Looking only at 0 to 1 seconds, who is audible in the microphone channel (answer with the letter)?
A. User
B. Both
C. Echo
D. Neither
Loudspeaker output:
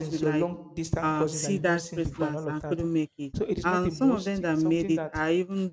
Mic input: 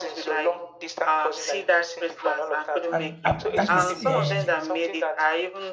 C